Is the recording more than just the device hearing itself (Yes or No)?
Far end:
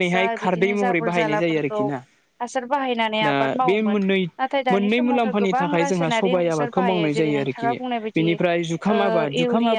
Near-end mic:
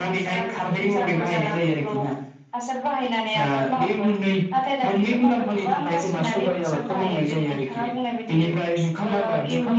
No